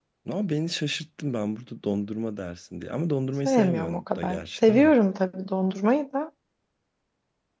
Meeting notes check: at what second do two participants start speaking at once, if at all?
3.5 s

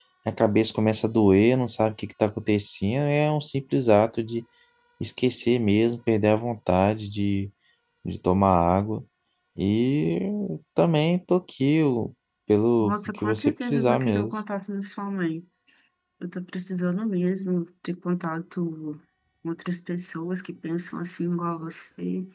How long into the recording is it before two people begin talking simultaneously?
12.8 s

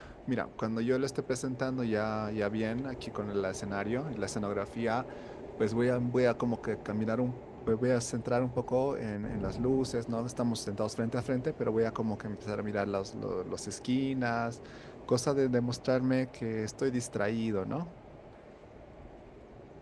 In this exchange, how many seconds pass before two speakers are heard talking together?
none

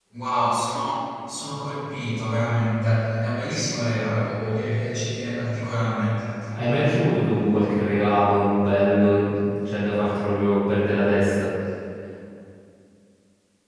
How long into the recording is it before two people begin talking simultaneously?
none

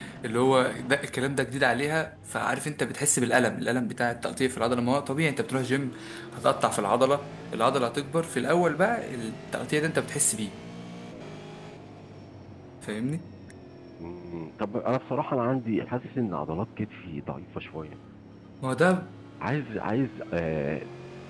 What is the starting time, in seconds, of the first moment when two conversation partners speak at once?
none

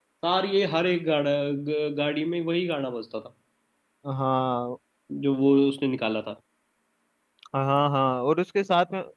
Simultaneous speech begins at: none

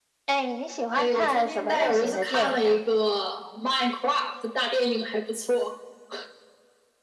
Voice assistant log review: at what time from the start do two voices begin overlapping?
0.9 s

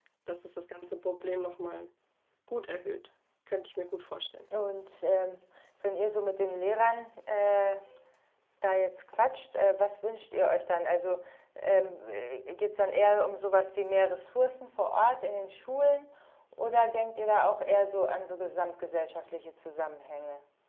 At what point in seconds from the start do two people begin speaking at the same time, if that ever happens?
none

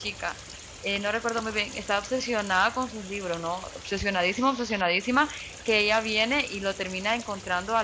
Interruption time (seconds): none

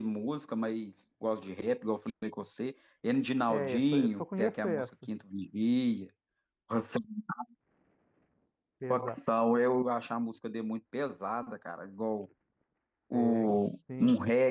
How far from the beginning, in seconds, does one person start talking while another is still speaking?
3.5 s

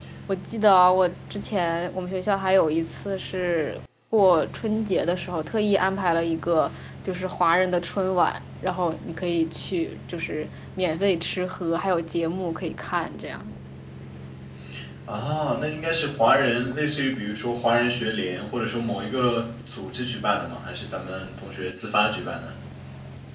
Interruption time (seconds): none

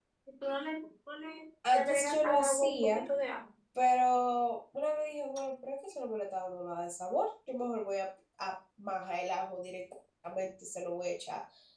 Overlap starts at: 1.6 s

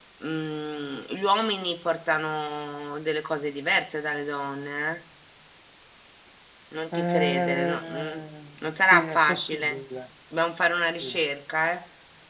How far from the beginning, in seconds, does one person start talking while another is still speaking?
6.9 s

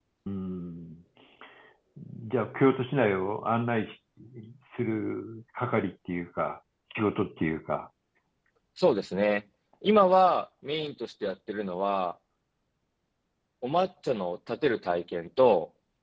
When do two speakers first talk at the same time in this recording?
none

